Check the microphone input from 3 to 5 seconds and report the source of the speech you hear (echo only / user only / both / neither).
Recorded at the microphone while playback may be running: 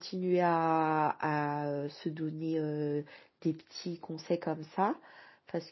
user only